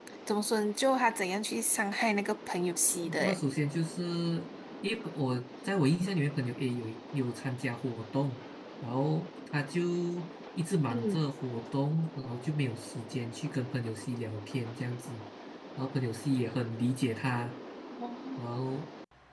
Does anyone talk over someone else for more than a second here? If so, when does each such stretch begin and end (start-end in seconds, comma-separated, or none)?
none